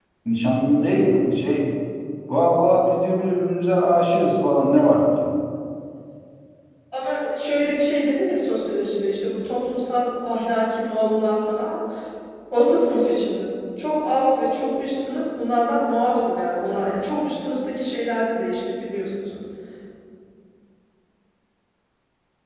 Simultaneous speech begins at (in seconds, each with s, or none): none